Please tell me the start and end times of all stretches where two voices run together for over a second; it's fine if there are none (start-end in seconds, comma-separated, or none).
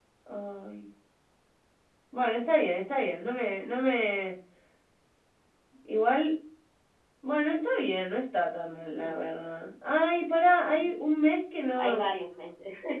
none